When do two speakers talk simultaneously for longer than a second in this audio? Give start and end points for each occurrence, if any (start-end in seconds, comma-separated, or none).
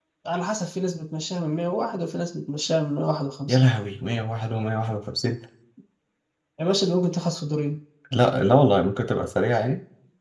none